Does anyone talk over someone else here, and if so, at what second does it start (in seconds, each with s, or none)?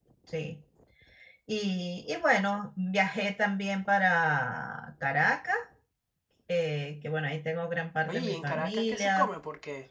8.1 s